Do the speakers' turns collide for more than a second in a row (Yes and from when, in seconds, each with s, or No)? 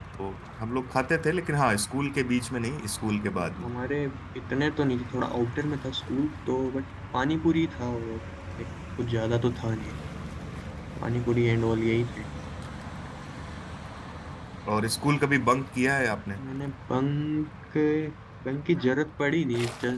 No